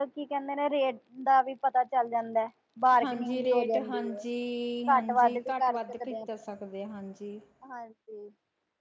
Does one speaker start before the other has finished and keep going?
Yes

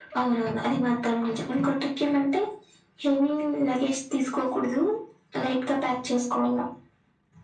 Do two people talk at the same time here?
No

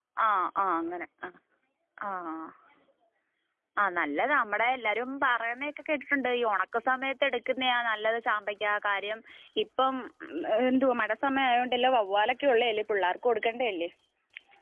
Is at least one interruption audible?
No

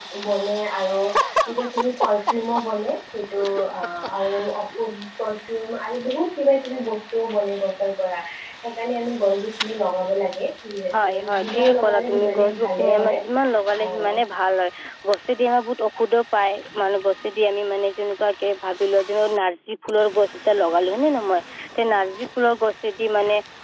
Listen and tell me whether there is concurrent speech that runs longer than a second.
Yes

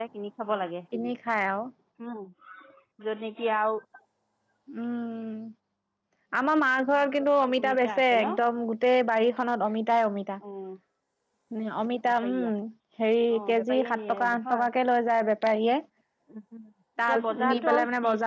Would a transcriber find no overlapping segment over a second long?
No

